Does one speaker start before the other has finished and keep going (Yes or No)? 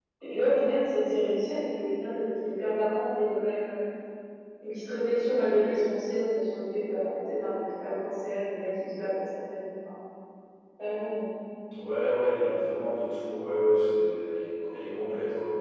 No